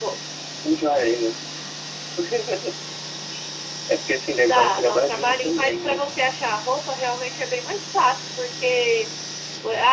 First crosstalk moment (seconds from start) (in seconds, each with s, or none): 4.4 s